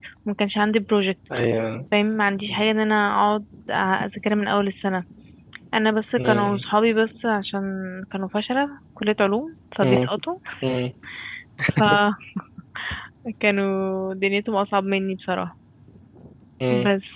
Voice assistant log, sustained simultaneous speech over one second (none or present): none